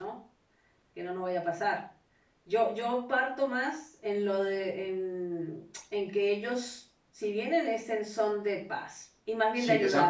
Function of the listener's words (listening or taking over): taking over